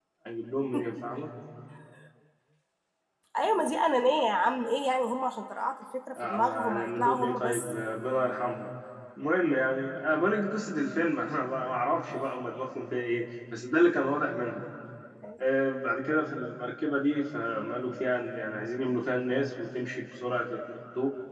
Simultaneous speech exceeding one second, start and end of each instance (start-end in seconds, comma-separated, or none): 6.2-7.7